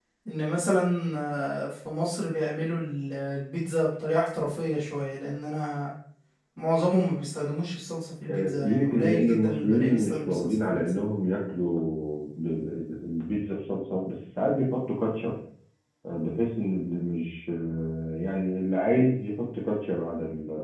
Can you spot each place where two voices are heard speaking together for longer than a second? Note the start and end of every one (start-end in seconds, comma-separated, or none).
8.3-11.0